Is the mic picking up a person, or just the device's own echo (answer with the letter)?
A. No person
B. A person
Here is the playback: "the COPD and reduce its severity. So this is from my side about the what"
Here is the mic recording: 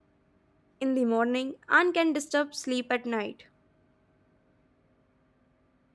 B